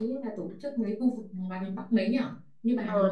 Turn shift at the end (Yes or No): Yes